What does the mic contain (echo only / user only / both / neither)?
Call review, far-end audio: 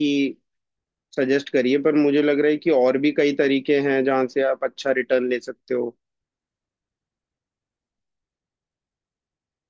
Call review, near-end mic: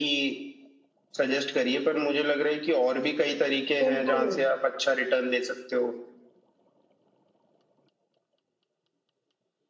both